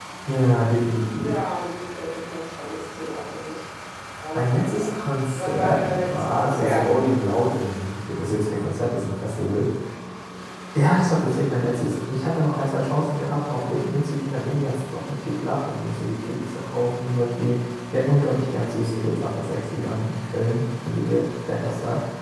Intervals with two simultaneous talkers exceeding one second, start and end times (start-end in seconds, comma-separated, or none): 5.3-6.9